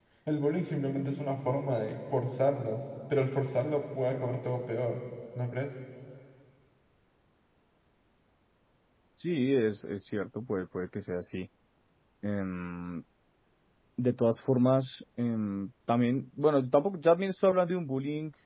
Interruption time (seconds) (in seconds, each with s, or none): none